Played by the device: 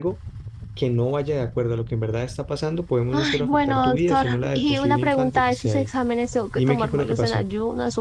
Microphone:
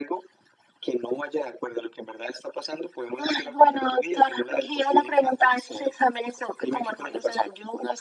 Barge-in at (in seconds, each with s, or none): none